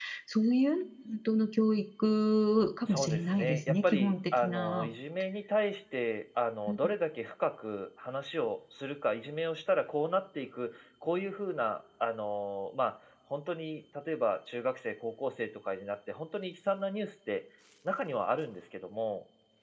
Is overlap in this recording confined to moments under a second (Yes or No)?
No